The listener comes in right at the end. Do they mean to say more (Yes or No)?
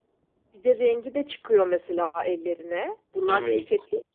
Yes